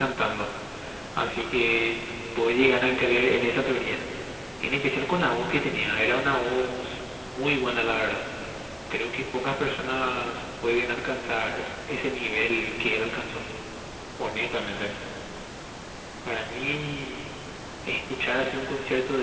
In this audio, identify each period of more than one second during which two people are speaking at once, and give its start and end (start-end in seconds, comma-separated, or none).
none